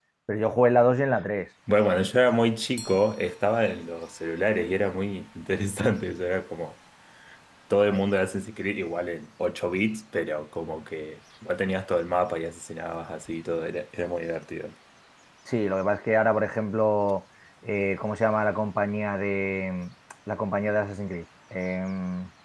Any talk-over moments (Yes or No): No